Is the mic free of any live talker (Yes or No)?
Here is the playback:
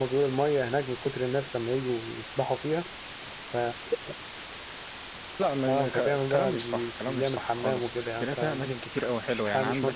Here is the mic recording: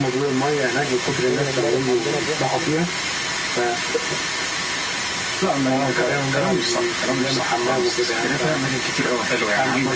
No